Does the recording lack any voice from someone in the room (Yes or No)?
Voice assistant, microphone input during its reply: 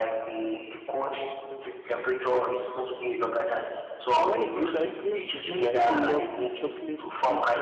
No